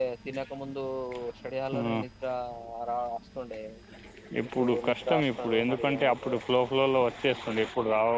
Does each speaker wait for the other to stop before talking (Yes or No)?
No